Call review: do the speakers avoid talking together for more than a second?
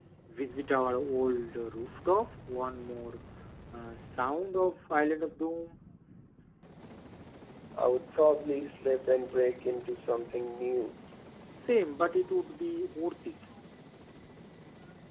Yes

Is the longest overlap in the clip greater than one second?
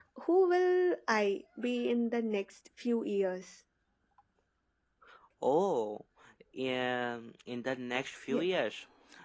No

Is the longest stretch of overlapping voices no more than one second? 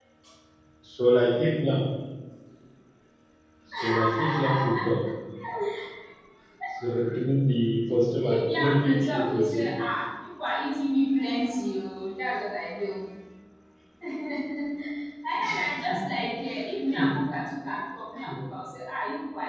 No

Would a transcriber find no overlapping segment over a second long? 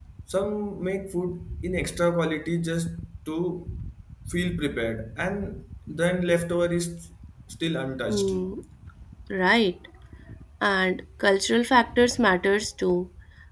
Yes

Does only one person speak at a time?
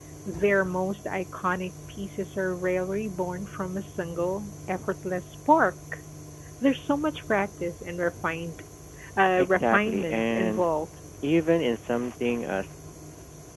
No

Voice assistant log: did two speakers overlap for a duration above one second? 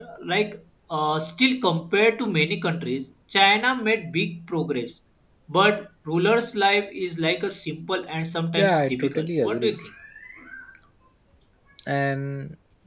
Yes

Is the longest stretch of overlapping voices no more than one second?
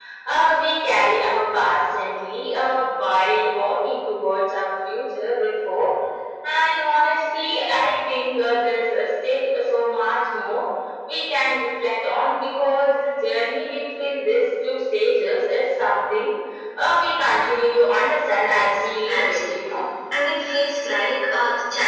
No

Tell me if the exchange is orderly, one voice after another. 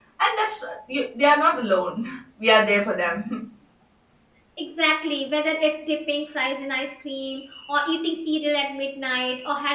Yes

